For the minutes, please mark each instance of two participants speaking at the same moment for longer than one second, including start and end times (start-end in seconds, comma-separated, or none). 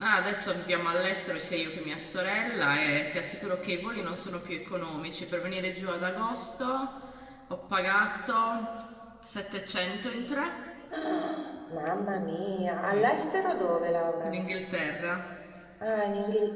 none